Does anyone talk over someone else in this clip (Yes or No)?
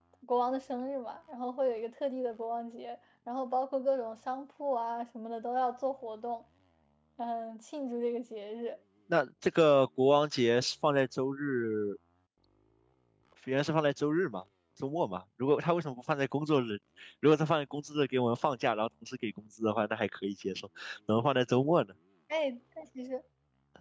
No